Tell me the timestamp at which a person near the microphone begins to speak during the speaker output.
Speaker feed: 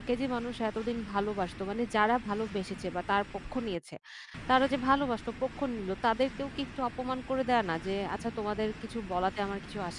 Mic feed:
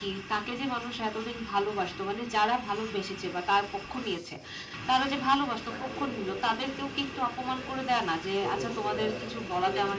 6 s

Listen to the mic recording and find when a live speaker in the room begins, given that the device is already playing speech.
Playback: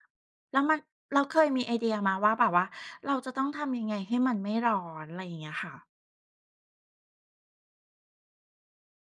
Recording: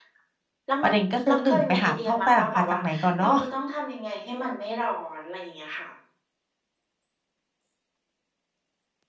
1 s

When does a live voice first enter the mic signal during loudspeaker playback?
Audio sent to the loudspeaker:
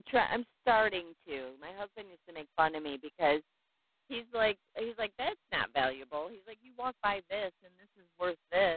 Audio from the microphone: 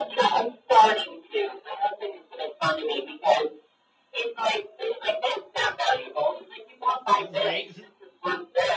7 s

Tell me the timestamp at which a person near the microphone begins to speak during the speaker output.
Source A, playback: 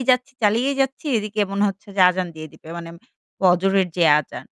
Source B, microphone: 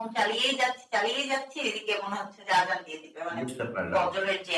3 s

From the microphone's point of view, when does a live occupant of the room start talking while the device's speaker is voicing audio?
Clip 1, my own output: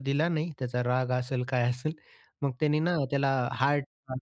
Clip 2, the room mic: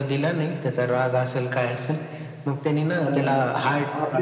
3 s

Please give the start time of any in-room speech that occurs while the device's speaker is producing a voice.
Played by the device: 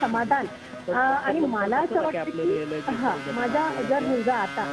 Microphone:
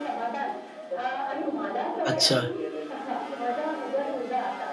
2 s

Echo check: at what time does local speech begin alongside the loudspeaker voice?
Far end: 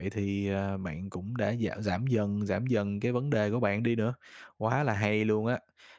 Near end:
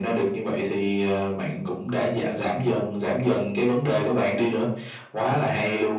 none

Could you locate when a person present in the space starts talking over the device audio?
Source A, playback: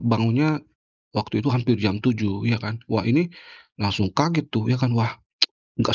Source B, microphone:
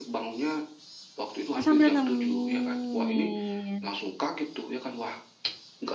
2 s

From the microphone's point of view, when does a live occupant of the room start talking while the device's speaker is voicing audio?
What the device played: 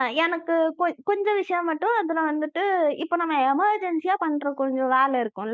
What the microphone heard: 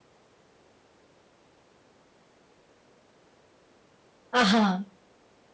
4 s

